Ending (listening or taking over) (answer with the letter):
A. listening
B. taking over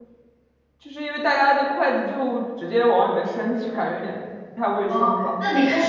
B